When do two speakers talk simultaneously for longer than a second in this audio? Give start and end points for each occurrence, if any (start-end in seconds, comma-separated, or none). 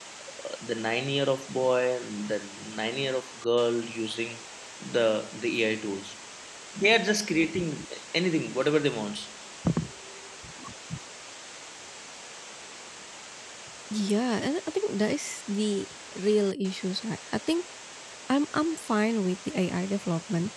none